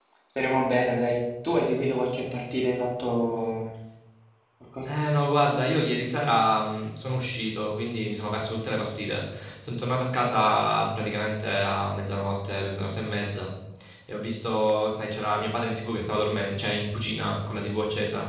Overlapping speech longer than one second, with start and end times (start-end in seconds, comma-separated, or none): none